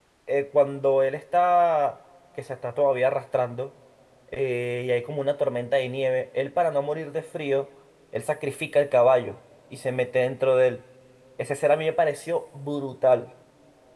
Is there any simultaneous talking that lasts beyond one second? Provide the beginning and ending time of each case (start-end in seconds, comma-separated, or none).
none